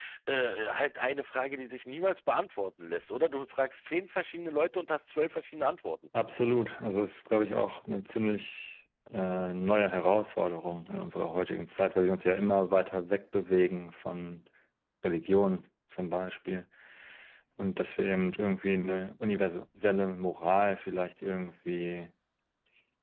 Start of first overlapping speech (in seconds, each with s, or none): none